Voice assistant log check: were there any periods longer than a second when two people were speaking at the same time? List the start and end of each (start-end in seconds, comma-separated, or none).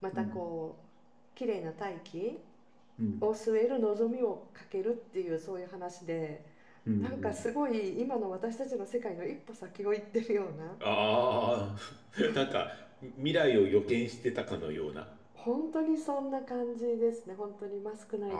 none